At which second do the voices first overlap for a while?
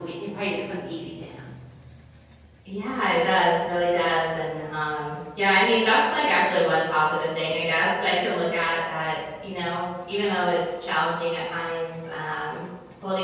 none

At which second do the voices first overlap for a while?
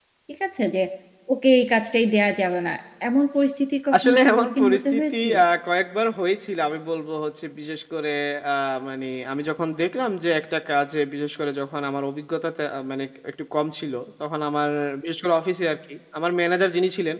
3.9 s

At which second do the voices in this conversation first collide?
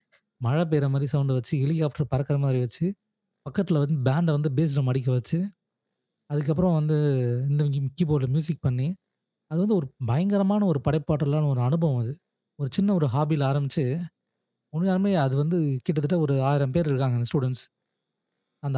none

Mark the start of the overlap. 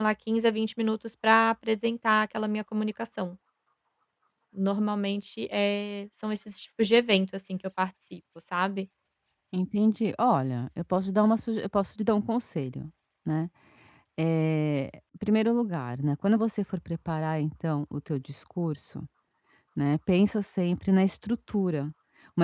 none

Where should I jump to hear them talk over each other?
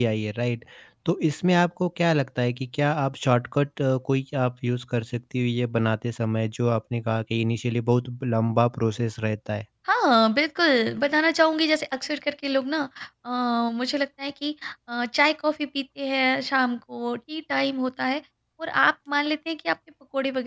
none

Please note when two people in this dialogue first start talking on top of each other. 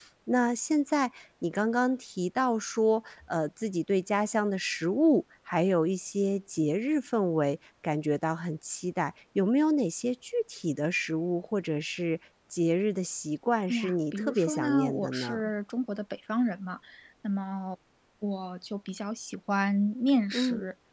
13.7 s

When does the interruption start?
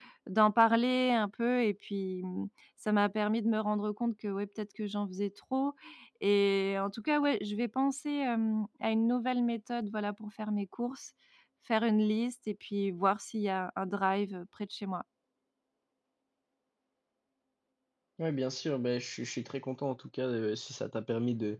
none

